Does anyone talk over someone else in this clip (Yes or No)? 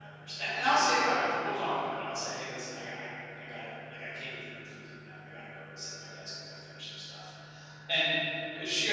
No